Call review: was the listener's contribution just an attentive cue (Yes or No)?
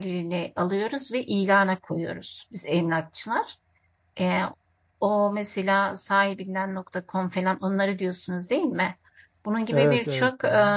Yes